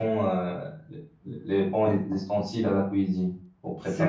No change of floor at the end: No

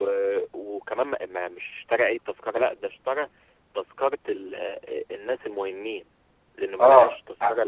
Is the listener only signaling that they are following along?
No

